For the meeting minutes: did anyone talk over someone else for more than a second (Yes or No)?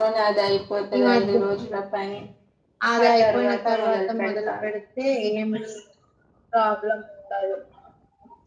Yes